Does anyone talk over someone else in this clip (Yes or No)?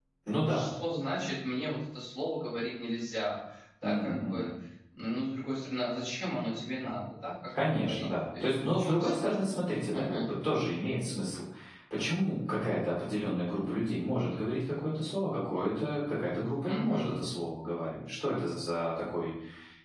Yes